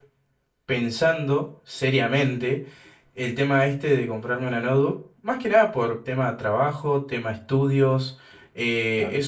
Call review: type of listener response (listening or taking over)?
listening